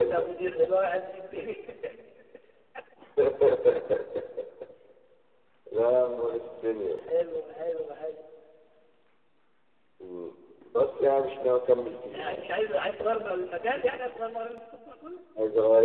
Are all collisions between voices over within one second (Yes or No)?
Yes